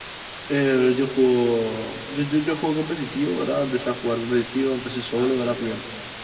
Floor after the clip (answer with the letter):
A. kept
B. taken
A